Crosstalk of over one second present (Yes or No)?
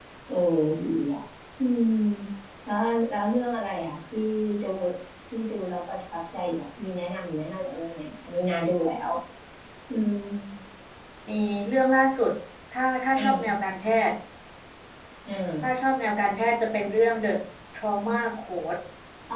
No